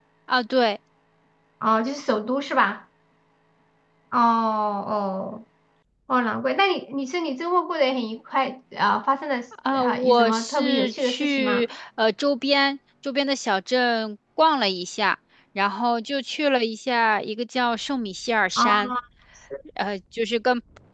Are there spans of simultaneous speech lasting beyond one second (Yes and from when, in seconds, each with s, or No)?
Yes, from 9.8 s